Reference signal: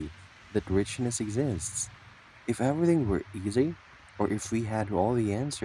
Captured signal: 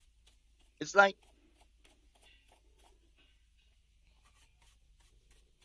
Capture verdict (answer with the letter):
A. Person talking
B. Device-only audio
A